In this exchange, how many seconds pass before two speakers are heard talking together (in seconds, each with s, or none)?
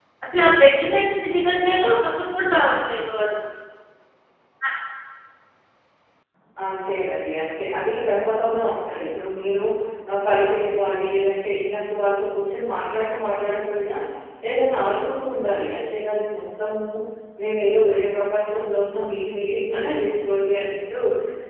none